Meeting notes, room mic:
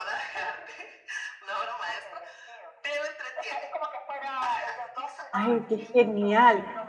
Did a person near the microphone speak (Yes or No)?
Yes